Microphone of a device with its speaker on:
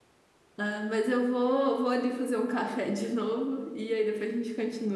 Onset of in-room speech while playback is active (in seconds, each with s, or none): 0.6 s